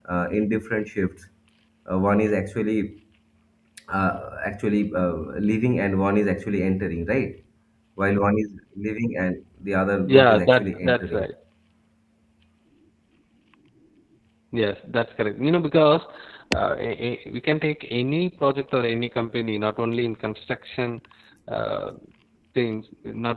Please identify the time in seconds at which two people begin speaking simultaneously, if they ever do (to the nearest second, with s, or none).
10 s